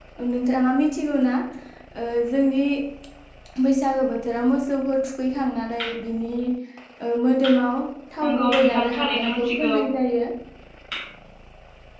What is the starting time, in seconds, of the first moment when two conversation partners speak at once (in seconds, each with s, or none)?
8.2 s